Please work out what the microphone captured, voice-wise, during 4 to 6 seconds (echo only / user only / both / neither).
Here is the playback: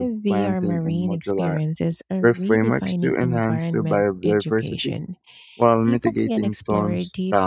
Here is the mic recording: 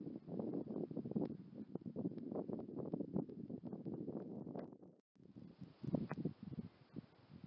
neither